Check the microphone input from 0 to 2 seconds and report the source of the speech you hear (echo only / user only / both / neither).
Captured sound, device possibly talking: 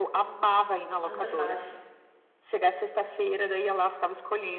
both